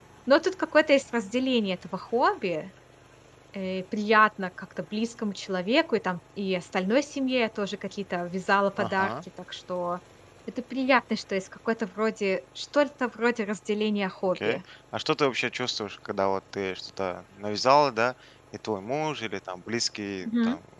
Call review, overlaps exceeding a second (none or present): none